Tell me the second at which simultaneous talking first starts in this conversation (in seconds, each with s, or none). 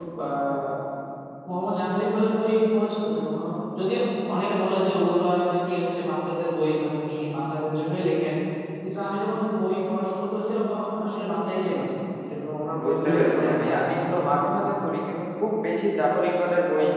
12.7 s